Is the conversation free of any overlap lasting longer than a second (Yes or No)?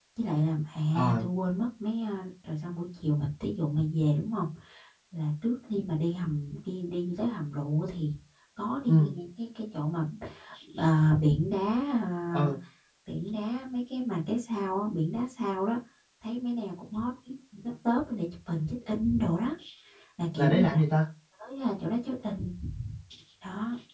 Yes